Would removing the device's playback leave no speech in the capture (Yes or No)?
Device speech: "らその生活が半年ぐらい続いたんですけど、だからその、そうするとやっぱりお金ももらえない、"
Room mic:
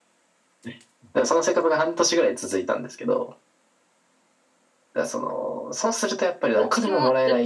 No